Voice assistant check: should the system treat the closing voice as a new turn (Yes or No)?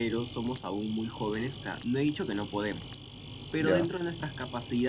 No